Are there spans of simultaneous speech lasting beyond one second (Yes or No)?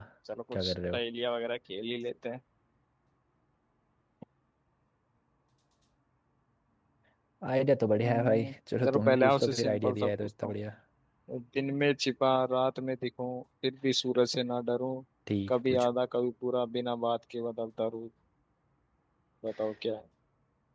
Yes